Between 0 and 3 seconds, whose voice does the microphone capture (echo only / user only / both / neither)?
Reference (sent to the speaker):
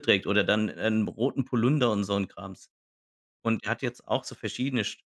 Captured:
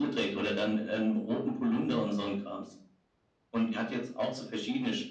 echo only